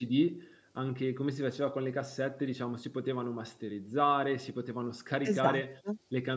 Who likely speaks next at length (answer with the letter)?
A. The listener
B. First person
B